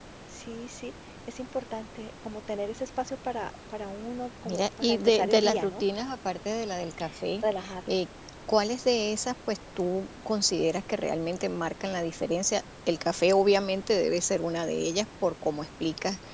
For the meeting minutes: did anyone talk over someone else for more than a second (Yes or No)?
Yes